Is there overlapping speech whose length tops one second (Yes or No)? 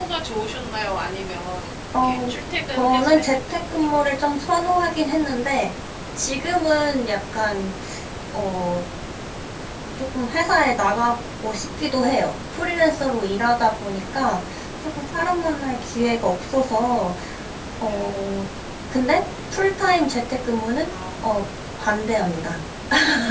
Yes